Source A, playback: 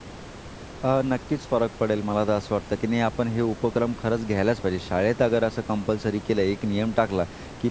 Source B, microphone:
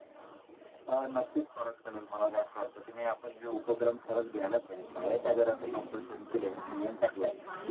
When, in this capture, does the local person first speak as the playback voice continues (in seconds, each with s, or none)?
4.8 s